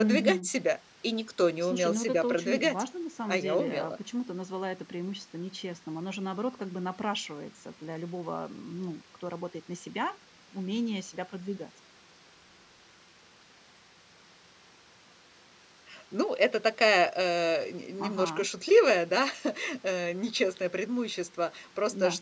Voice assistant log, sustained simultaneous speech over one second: present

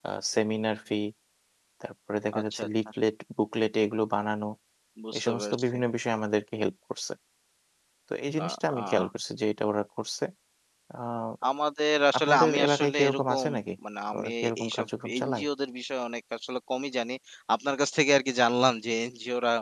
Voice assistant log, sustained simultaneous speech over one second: present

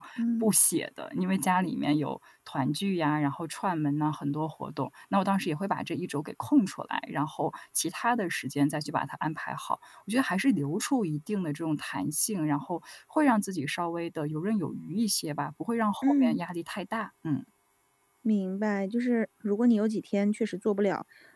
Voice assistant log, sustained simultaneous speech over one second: none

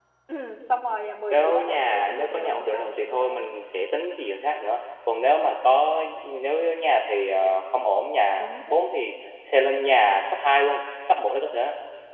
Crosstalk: present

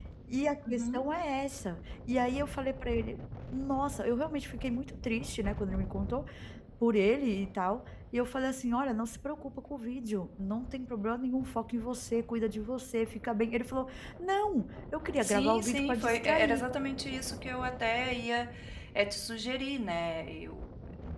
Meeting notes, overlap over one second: present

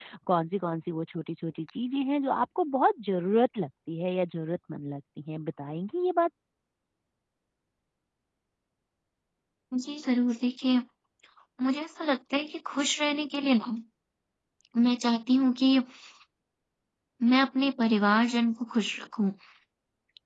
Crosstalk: none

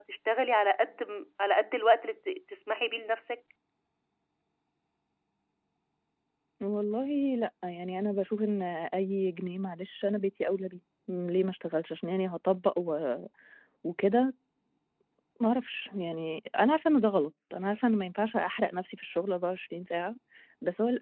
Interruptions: none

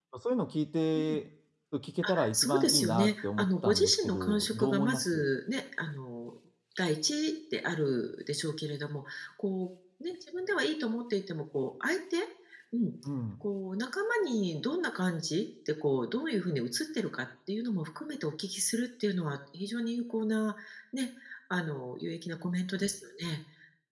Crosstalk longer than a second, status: present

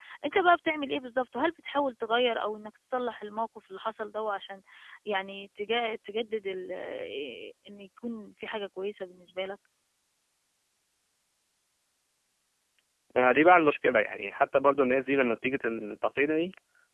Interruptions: none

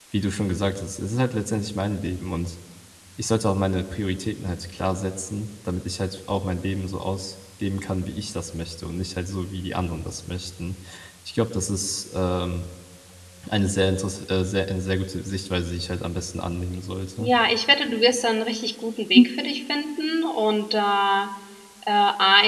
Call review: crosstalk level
none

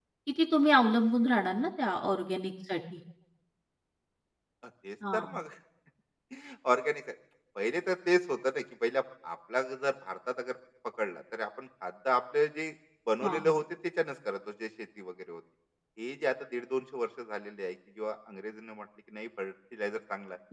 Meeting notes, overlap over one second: none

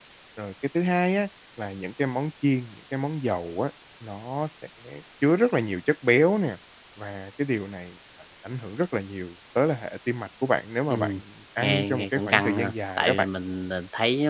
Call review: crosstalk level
present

